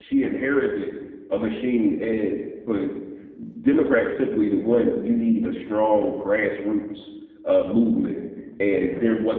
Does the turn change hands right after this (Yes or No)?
No